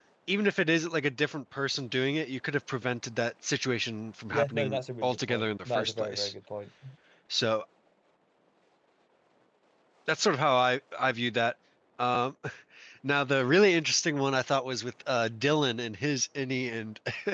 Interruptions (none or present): present